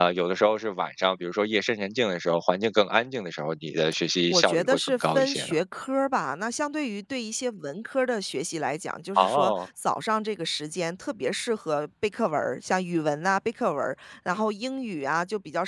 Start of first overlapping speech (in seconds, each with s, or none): 4.3 s